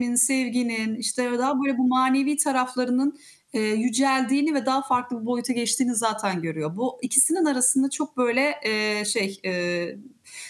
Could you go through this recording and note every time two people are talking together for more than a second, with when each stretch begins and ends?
none

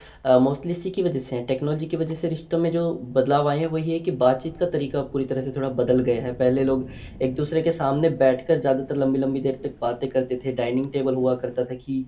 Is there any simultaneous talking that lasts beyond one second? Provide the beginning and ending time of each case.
none

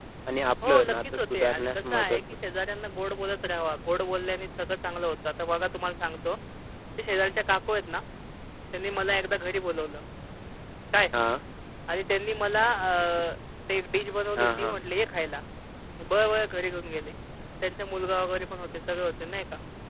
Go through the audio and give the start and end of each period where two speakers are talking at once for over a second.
0.7-2.2

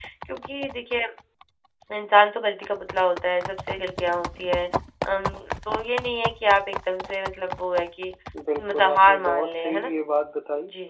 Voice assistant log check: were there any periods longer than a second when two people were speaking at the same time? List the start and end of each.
8.6-9.9

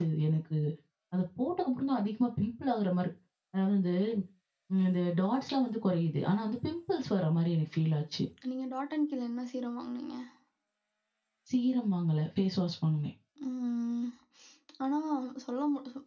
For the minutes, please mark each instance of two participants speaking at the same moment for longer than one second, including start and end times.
none

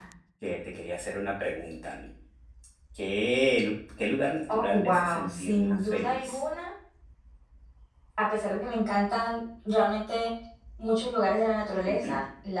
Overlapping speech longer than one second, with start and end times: 4.5-6.4

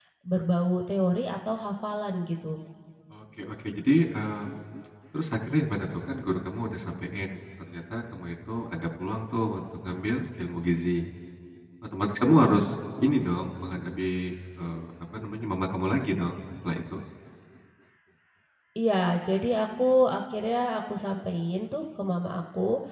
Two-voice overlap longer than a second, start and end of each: none

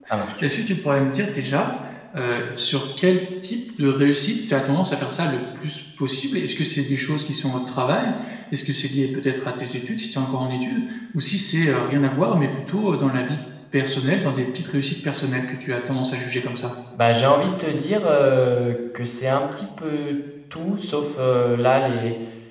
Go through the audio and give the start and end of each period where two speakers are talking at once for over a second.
none

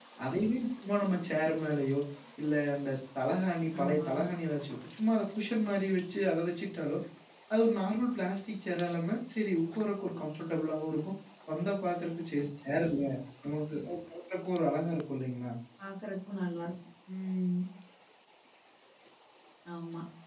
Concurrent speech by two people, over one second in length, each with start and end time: none

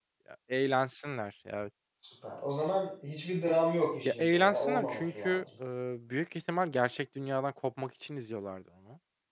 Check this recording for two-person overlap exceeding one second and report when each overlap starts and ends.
4.0-5.4

